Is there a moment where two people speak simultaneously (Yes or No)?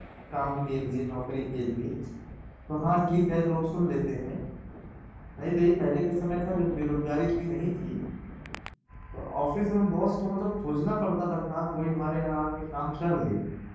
No